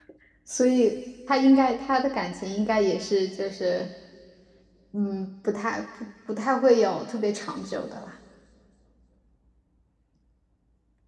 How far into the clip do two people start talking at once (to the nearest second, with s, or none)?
none